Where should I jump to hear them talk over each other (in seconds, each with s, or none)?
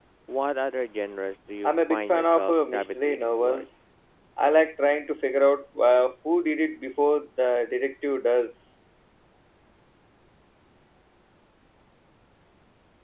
1.6 s